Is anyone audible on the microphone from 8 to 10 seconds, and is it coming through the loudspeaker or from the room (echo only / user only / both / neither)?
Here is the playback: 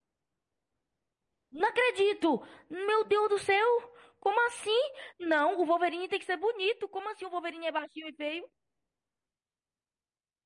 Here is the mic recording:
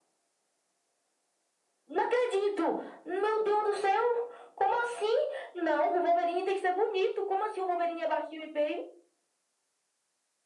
echo only